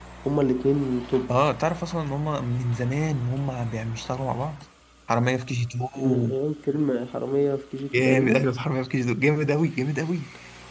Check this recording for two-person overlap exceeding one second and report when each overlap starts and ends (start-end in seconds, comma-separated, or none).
none